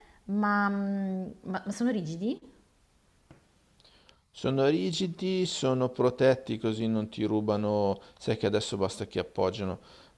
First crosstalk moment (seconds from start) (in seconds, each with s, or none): none